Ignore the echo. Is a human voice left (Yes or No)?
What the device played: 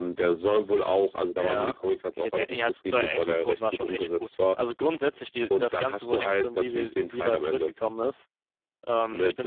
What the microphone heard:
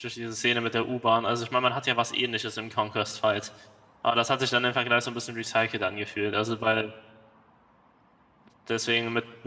Yes